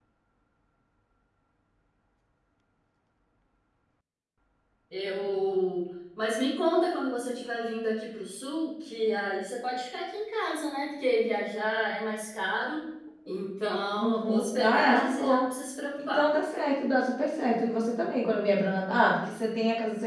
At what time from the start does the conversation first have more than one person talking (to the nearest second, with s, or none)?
14 s